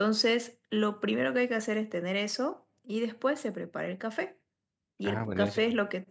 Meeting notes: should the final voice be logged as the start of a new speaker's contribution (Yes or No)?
No